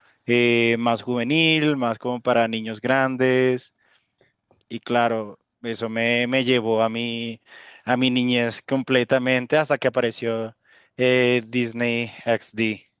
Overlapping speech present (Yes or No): No